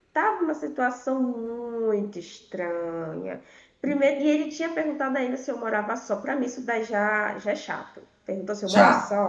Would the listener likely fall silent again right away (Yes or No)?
Yes